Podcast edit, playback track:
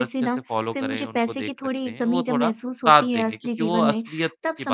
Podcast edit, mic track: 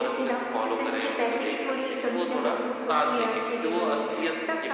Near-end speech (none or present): none